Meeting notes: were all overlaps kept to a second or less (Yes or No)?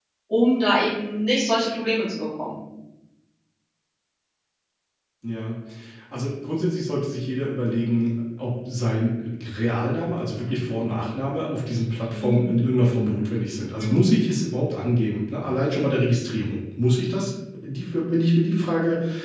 Yes